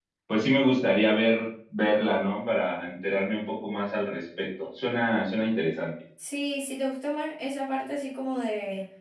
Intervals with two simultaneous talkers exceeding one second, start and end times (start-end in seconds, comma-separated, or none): none